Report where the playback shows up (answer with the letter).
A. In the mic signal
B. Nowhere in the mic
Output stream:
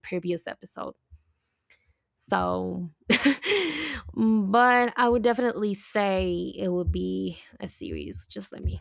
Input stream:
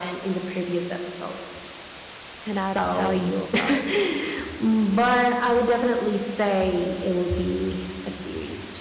A